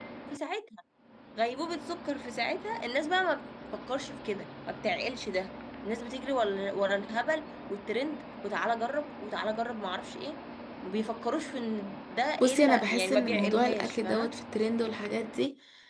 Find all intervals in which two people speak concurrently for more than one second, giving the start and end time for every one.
12.4-14.3

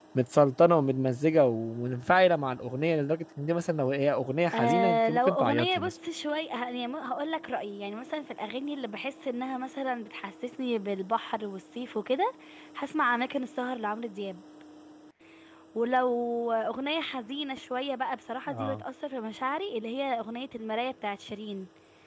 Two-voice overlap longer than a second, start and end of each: 4.5-5.9

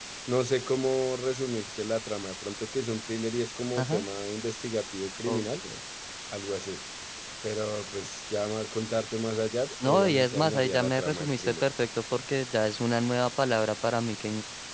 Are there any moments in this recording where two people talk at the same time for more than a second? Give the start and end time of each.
9.8-11.6

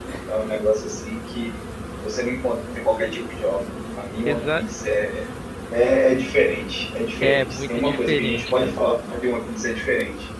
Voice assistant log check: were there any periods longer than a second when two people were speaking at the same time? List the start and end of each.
7.2-8.8

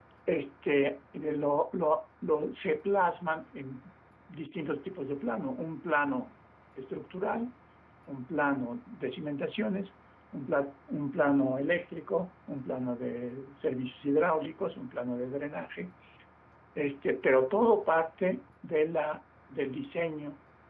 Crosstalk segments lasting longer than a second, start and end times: none

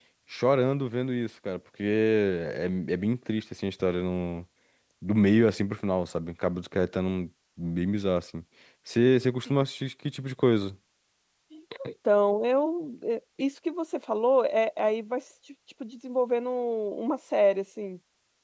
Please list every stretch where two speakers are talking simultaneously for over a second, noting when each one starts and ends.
none

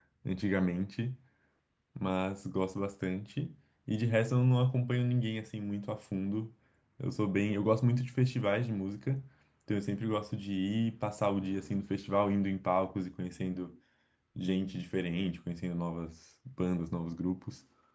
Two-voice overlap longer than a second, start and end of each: none

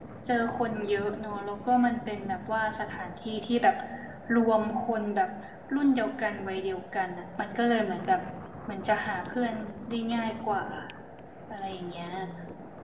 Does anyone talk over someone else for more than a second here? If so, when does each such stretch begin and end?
none

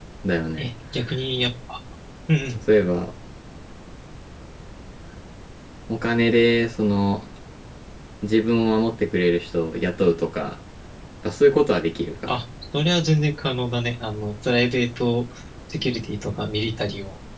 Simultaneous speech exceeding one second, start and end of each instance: none

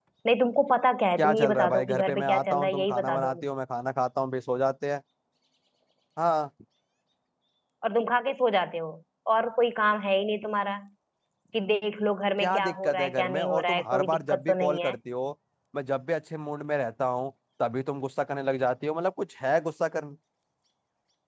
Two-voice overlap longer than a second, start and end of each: 1.2-3.4, 12.4-15.0

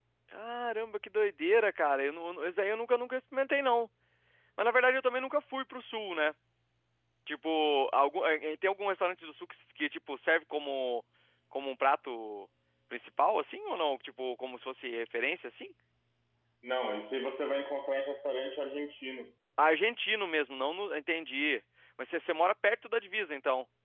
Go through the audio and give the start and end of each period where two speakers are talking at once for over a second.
none

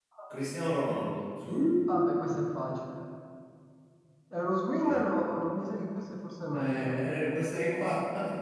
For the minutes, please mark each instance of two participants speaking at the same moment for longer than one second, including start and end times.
none

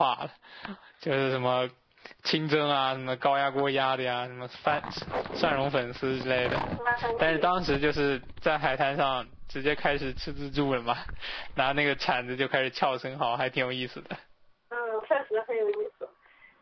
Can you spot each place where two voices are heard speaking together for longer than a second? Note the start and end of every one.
none

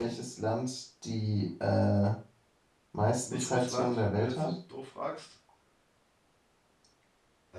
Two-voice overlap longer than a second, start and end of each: 3.2-4.5

